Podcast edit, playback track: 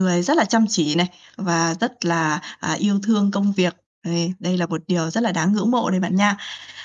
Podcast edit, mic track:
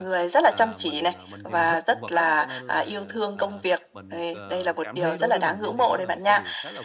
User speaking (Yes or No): Yes